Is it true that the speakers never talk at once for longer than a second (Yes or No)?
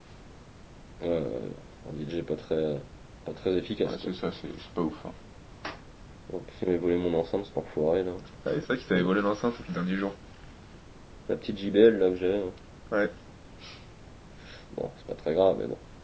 Yes